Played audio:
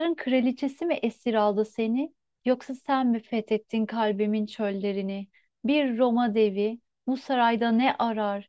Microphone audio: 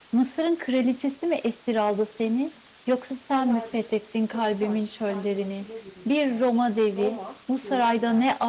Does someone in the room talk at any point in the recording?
Yes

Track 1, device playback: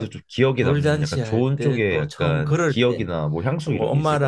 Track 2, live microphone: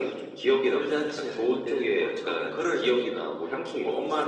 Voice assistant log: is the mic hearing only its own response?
Yes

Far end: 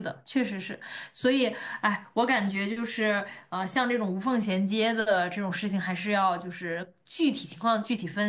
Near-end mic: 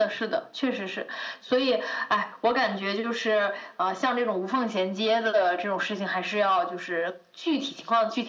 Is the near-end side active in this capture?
No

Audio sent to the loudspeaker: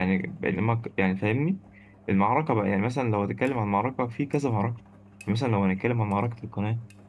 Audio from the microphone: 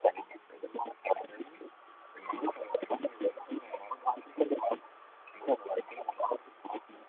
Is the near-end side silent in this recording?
Yes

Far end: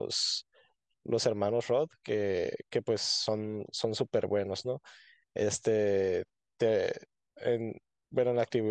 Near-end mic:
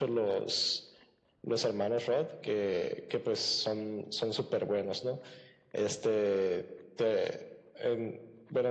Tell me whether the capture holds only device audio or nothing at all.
Yes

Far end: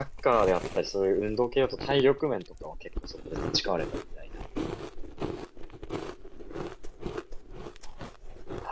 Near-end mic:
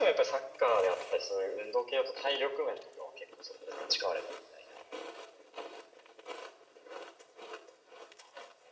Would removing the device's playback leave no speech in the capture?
Yes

